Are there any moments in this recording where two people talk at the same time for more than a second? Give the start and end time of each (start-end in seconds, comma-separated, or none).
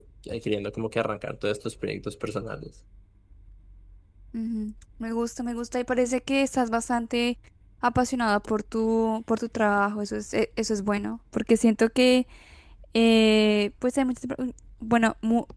none